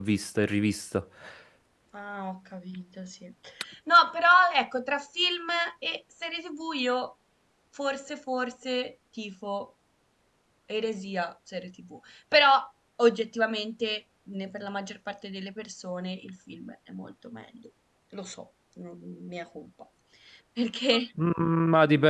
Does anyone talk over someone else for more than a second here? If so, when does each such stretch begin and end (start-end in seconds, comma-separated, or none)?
none